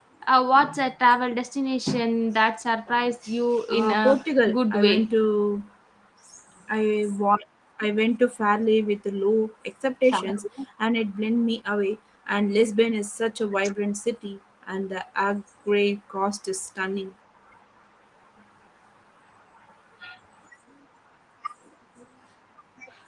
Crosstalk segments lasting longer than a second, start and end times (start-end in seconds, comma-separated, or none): 3.7-5.0